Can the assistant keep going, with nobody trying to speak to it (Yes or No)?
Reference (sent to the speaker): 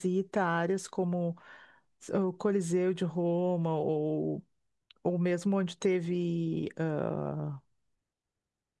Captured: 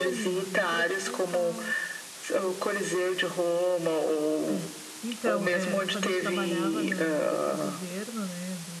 No